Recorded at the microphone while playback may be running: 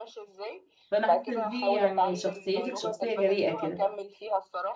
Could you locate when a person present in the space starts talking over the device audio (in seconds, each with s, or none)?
0.9 s